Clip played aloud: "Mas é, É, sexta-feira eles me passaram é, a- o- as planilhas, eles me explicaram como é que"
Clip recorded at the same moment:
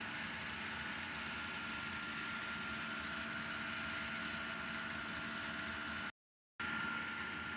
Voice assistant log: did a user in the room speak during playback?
No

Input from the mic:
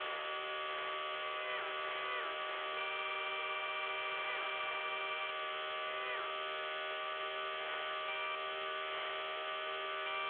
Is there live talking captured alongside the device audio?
No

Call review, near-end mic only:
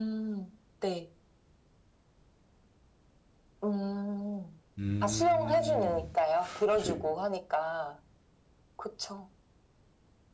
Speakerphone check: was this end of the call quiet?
No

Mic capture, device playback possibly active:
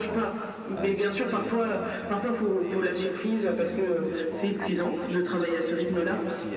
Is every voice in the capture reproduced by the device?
No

